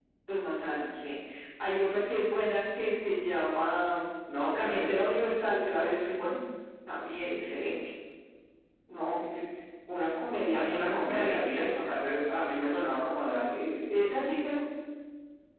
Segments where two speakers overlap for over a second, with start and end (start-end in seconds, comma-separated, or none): 10.5-11.8